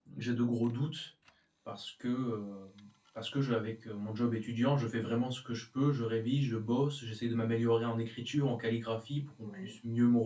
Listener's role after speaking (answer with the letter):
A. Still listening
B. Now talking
A